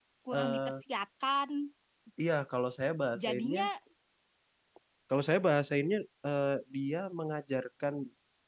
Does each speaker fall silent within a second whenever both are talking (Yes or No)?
Yes